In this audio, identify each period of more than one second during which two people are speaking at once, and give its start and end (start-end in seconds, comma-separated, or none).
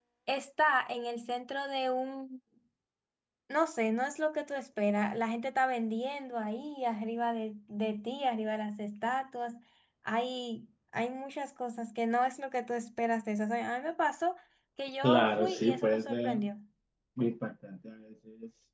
15.0-16.4